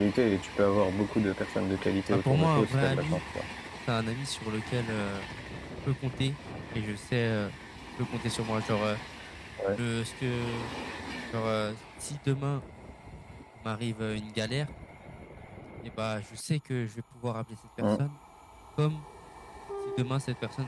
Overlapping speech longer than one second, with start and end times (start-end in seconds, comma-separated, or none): 1.8-3.2